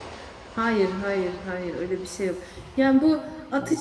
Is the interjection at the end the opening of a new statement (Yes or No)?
No